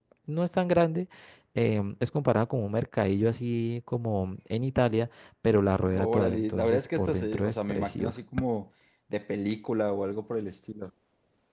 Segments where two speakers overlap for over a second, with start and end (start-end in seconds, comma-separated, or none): 5.9-8.2